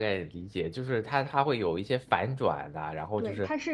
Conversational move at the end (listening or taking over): taking over